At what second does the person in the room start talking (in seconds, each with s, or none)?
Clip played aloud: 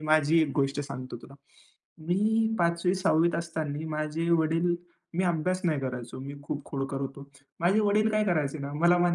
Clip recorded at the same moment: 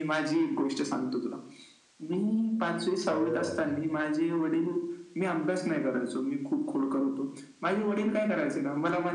3.1 s